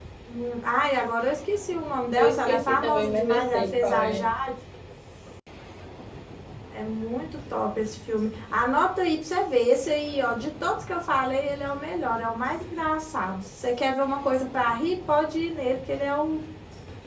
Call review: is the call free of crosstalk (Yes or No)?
No